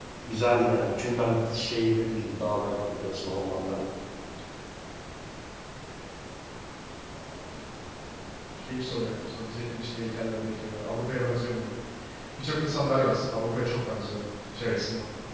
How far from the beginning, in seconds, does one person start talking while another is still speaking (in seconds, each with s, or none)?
none